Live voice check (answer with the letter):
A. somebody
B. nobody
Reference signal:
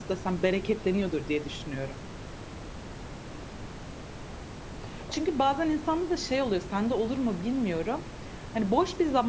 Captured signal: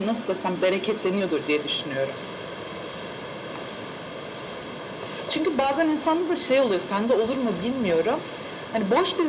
B